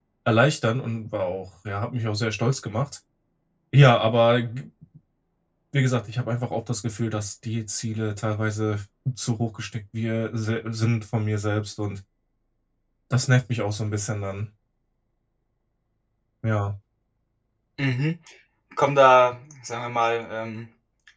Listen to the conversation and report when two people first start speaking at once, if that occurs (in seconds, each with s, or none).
none